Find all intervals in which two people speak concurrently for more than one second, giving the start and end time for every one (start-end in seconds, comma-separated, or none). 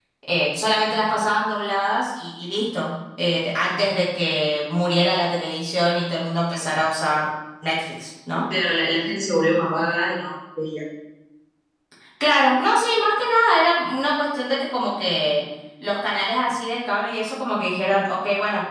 none